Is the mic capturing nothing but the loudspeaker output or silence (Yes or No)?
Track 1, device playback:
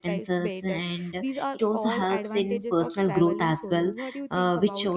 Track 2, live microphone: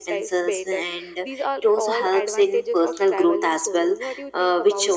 Yes